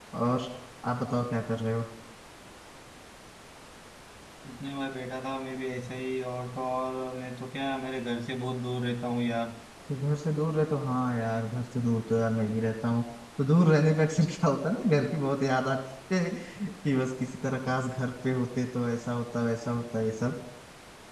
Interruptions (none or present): none